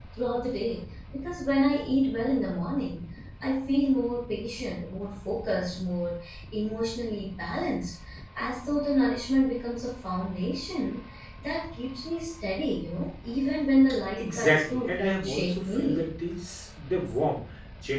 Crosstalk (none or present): present